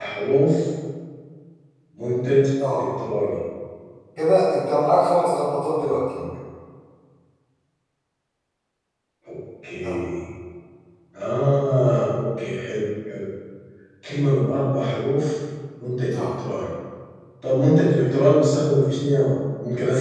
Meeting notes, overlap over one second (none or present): none